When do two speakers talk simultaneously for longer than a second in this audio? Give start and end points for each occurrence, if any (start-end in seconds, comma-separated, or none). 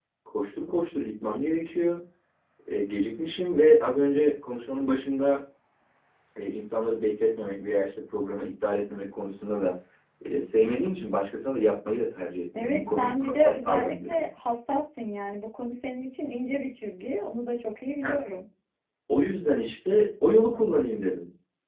12.5-14.2